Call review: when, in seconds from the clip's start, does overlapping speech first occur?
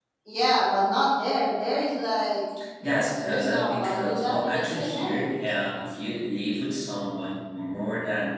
3.2 s

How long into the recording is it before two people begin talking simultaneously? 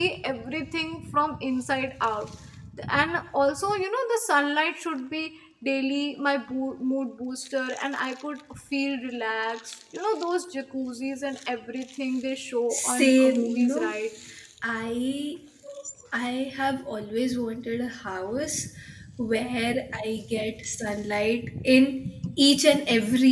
12.7 s

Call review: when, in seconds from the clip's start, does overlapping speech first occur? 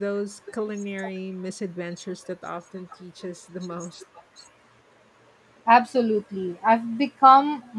none

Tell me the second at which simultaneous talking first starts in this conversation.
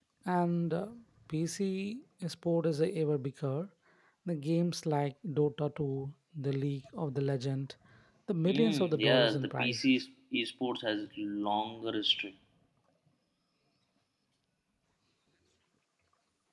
8.4 s

